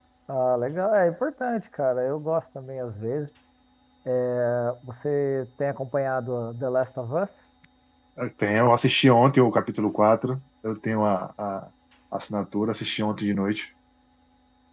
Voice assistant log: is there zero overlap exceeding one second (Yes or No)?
Yes